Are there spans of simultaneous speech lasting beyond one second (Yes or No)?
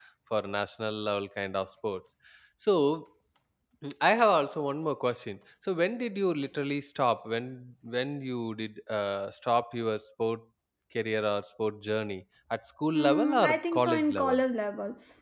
Yes